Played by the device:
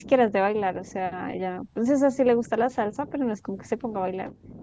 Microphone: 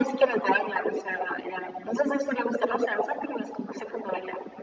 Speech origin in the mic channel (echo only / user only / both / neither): echo only